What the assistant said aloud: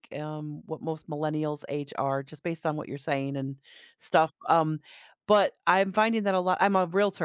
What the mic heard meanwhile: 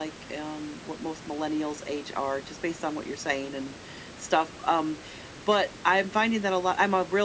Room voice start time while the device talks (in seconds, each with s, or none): none